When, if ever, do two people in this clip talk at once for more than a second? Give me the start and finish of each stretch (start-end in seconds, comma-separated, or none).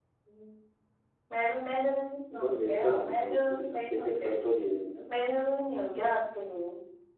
2.4-4.3